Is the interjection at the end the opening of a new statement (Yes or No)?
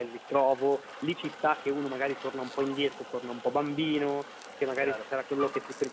No